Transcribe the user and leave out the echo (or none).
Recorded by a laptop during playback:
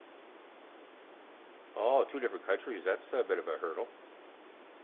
oh, two different countries. That's a bit of a hurdle.